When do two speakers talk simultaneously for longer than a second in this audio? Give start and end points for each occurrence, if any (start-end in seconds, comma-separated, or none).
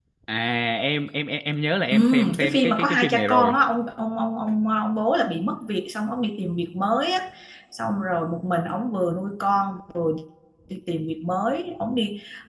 1.9-3.6